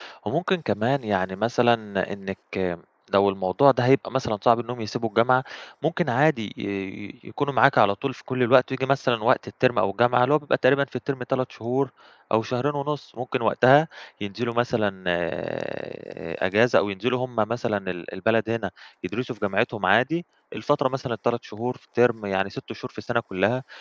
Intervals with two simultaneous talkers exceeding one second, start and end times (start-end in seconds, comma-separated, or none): none